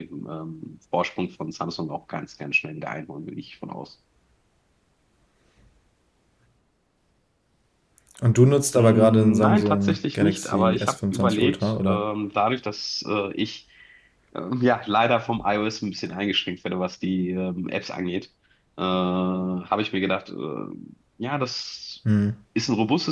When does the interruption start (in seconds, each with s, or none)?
8.7 s